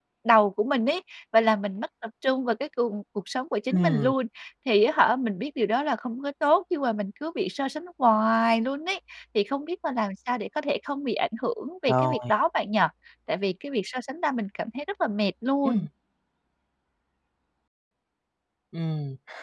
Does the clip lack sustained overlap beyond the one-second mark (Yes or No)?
Yes